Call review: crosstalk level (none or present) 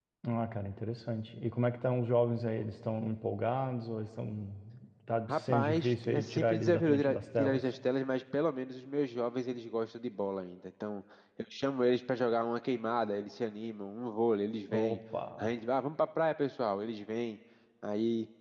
present